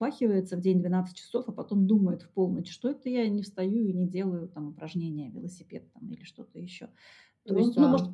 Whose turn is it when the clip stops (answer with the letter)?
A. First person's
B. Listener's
A